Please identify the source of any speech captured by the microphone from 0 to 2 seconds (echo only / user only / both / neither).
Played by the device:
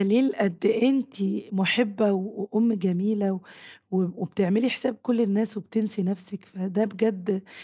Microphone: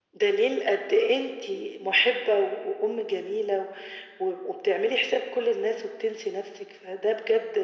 echo only